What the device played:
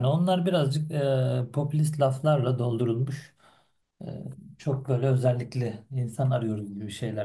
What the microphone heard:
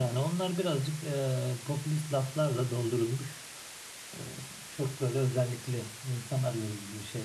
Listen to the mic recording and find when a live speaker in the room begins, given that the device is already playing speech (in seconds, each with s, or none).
none